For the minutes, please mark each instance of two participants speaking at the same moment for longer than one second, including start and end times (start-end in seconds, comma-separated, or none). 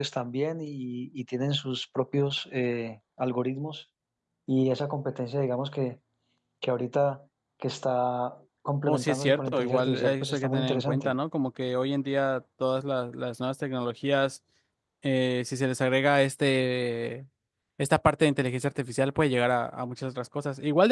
8.9-11.1